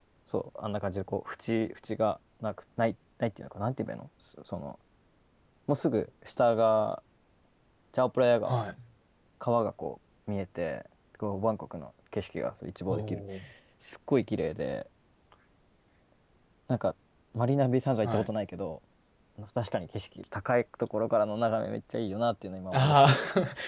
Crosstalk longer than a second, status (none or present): none